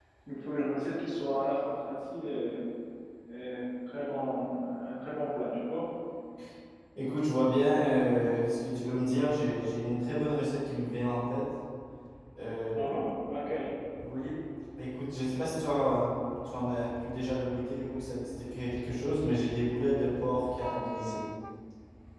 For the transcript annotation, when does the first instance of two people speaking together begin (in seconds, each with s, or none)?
none